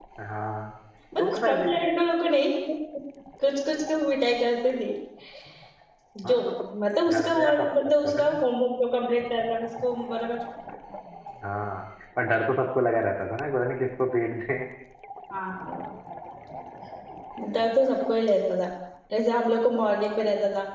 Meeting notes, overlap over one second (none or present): present